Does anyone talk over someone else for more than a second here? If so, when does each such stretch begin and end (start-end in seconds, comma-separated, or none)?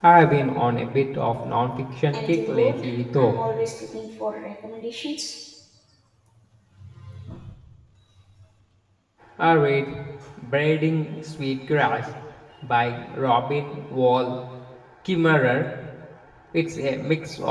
2.1-3.4